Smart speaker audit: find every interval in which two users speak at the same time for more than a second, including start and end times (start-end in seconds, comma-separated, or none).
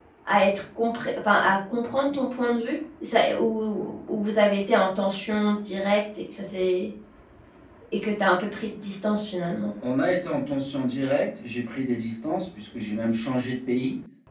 none